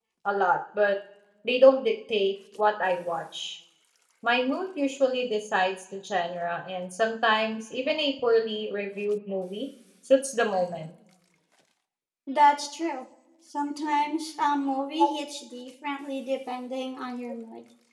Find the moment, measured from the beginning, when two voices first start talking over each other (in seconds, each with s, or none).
none